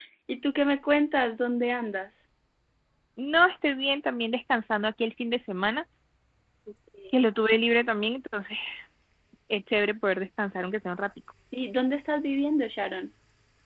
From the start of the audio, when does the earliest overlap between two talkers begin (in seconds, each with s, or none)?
none